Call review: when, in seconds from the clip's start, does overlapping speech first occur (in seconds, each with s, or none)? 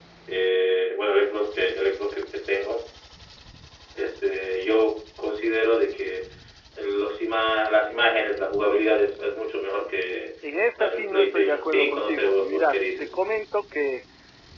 10.8 s